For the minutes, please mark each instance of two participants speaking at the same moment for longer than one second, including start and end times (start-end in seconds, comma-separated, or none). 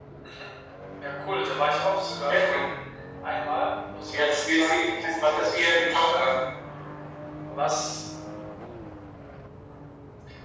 4.1-6.2